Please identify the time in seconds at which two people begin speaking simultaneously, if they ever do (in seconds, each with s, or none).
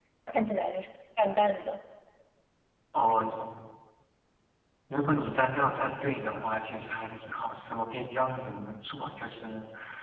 none